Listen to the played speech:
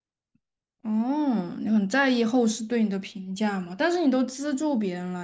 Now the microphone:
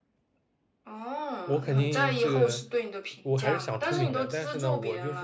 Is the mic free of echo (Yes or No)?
No